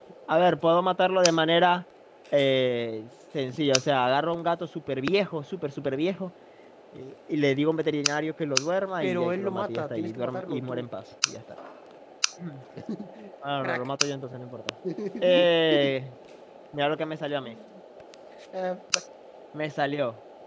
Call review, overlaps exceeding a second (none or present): present